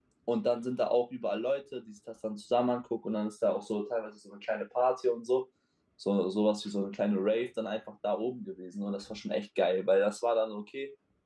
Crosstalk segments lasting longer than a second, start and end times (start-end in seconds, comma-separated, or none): none